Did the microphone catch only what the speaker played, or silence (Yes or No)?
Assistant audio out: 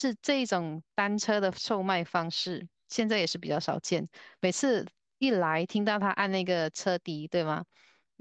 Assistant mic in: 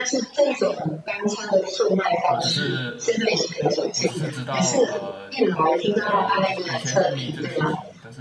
No